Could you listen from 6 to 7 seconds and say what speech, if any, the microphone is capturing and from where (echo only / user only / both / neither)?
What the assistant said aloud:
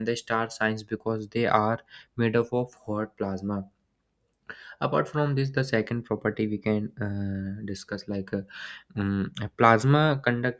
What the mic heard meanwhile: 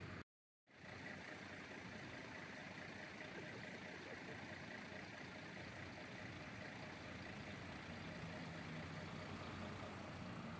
neither